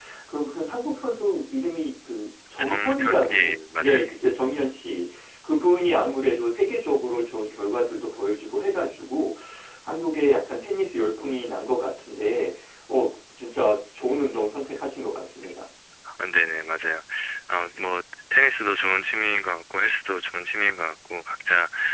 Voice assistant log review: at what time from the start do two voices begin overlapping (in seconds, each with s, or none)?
2.6 s